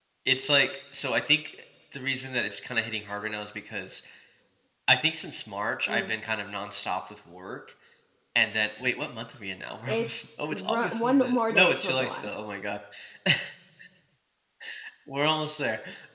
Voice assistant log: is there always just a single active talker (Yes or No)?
No